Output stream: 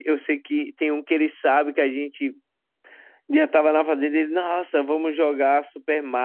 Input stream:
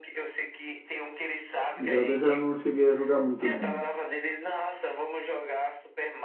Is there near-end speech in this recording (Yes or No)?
Yes